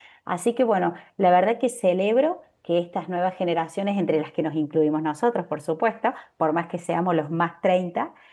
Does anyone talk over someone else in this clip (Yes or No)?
No